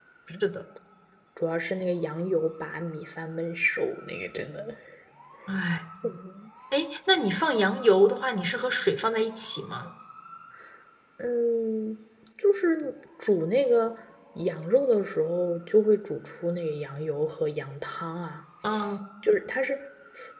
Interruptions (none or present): none